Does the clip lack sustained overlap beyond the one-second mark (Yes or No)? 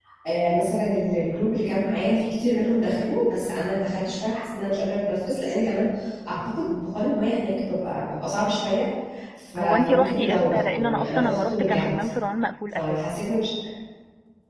No